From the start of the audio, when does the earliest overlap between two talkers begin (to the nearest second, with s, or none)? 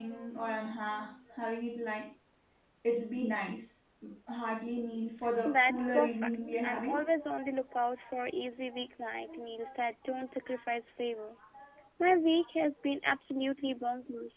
5 s